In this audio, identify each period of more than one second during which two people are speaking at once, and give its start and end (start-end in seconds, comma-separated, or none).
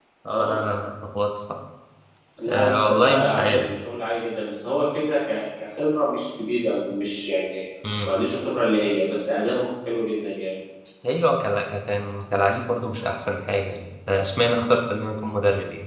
2.5-3.7